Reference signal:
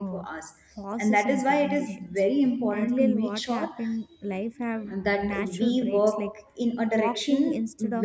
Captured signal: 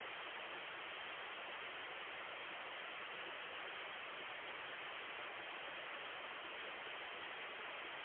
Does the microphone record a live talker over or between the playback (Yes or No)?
No